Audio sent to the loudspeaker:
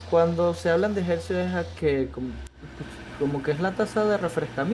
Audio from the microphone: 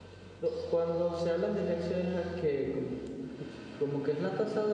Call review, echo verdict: present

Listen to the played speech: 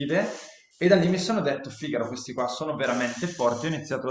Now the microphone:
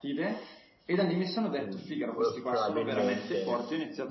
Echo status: present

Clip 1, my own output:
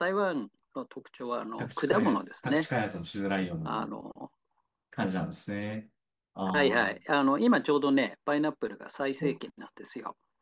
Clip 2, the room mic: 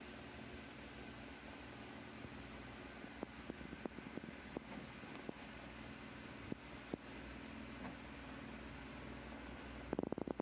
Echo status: none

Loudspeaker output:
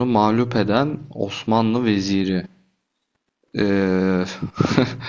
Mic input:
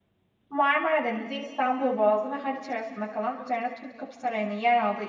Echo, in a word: none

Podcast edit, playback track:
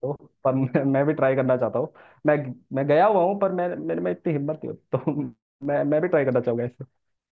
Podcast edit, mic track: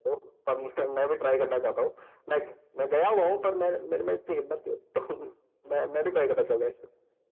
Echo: present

